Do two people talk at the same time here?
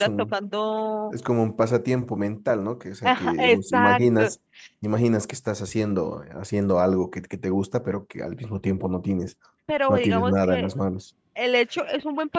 Yes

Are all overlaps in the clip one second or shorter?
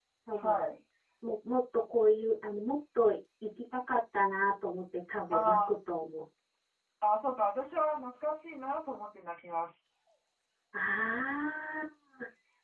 Yes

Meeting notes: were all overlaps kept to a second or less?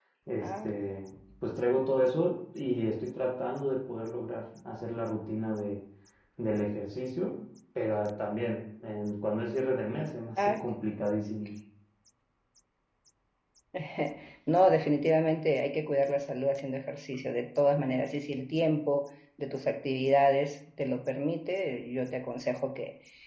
Yes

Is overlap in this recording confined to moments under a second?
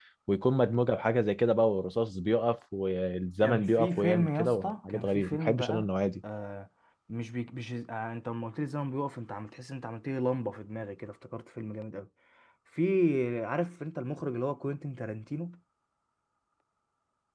No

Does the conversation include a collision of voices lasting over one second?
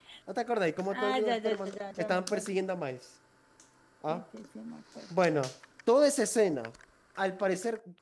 Yes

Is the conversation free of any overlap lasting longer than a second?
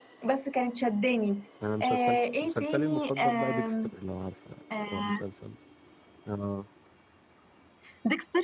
No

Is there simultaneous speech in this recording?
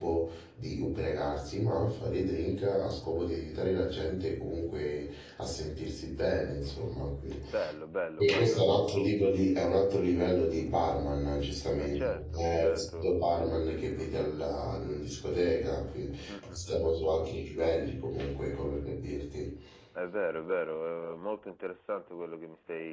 Yes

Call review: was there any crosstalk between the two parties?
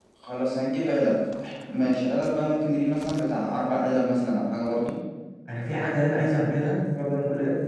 No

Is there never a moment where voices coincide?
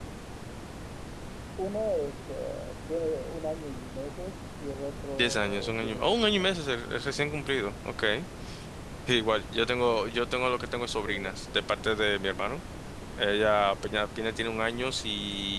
No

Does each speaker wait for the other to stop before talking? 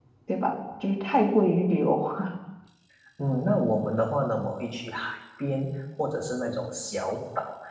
Yes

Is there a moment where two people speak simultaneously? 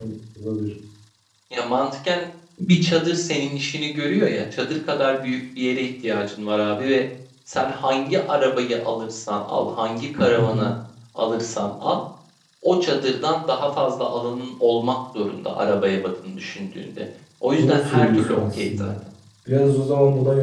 Yes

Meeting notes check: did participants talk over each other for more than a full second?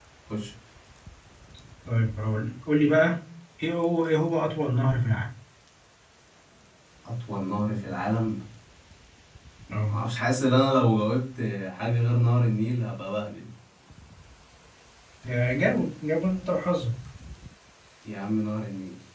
No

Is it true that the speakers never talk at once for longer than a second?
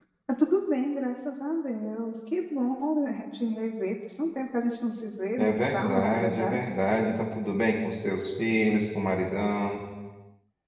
No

